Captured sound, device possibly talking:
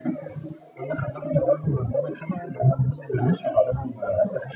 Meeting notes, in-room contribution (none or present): none